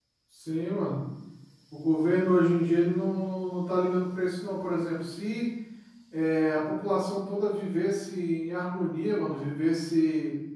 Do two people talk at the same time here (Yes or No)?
No